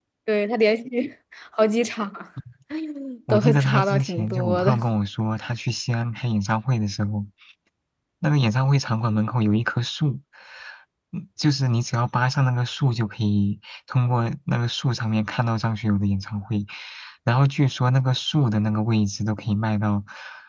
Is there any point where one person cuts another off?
Yes, from 3.3 s

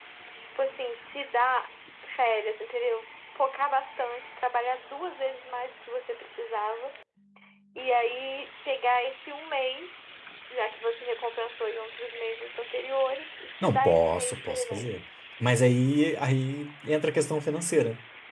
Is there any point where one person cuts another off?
Yes, from 13.6 s

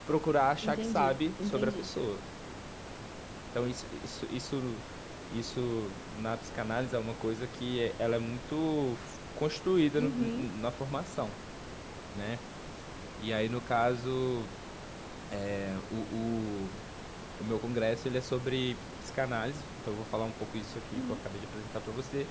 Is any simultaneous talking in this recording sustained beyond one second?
Yes, from 0.6 s

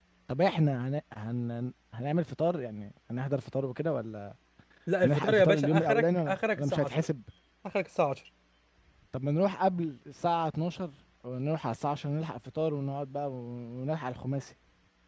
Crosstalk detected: Yes, from 5.0 s

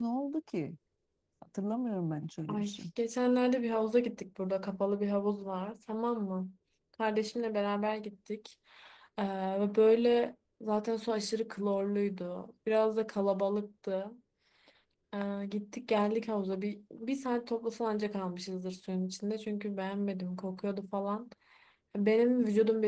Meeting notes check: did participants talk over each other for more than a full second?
No

